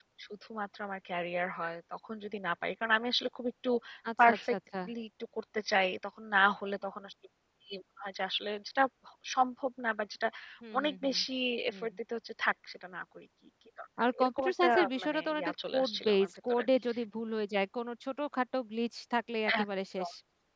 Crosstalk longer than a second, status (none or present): present